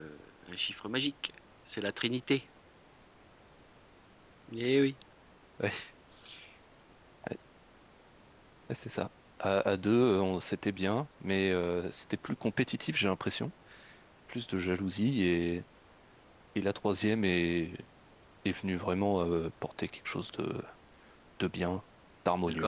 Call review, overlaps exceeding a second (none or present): none